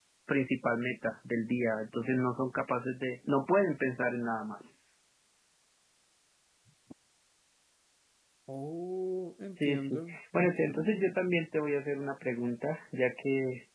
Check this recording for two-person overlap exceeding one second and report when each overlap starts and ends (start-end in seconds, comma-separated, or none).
9.6-11.0